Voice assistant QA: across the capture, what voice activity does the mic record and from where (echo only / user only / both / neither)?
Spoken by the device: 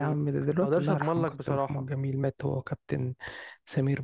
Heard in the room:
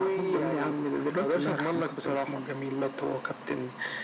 echo only